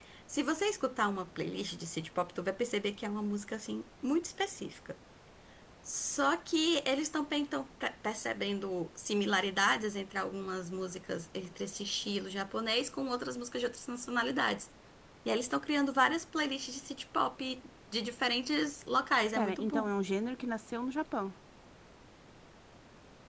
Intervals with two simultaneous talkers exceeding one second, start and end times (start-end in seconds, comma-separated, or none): none